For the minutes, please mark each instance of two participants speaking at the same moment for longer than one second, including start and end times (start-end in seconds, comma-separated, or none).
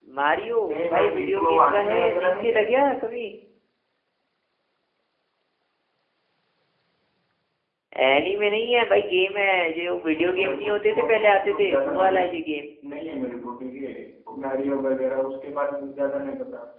0.7-2.9, 10.1-12.3